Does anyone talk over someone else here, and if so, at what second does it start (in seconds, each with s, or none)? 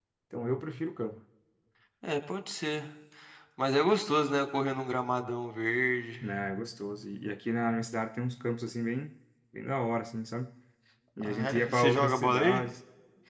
11.2 s